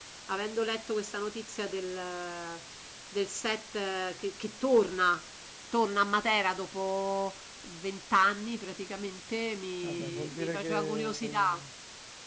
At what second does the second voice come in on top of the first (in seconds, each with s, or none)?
9.8 s